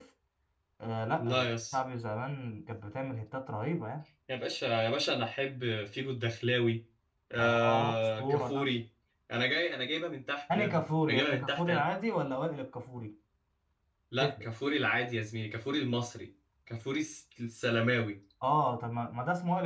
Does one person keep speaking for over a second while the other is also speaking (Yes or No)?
Yes